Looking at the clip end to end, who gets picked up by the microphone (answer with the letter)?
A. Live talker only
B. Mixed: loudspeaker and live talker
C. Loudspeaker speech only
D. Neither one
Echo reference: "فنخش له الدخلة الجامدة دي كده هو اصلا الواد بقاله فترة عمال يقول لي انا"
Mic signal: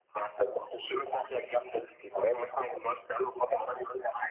C